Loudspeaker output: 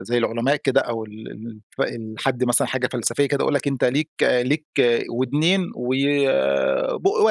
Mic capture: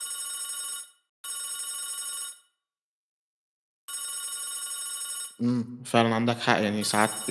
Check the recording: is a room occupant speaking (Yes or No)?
Yes